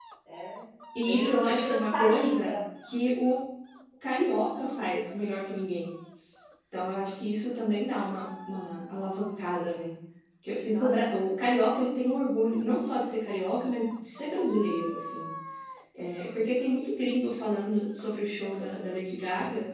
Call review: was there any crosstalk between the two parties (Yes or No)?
Yes